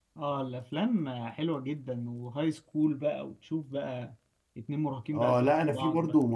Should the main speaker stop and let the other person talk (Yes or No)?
Yes